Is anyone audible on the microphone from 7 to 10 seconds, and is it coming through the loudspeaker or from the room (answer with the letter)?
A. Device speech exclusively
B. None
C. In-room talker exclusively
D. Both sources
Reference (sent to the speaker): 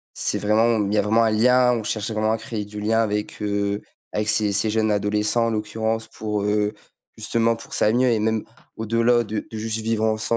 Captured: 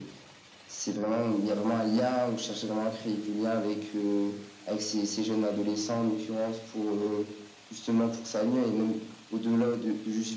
A